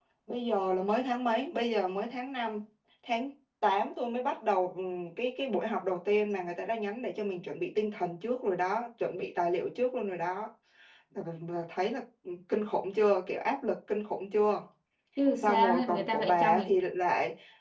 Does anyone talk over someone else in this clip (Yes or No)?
Yes